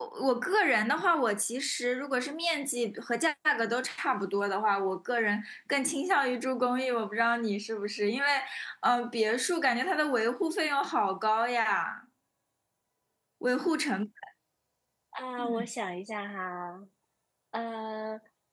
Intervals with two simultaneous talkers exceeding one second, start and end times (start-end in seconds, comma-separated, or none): none